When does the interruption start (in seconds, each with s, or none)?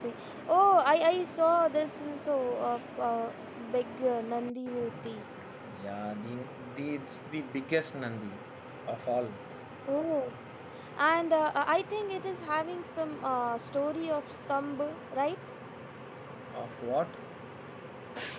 none